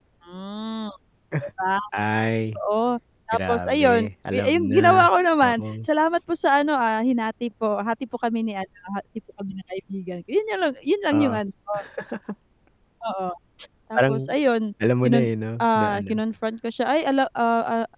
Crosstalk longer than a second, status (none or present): present